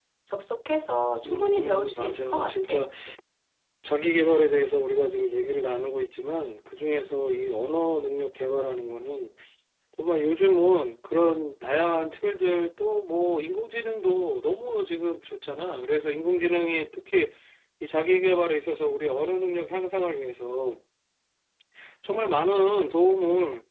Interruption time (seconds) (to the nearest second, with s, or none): 1 s